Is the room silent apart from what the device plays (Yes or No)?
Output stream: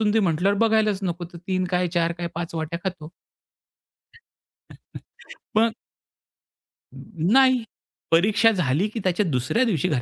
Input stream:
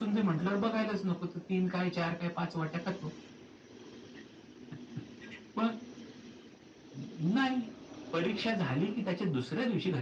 Yes